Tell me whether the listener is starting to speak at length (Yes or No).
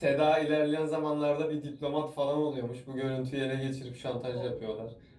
Yes